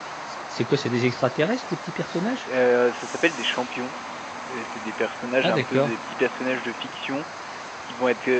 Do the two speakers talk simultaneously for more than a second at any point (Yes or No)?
No